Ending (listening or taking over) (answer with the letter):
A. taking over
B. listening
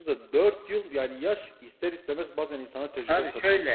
A